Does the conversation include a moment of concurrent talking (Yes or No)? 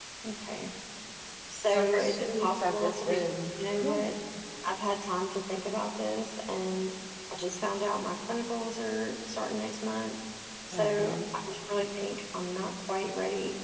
Yes